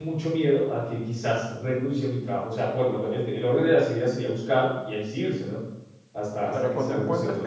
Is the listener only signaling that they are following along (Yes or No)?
No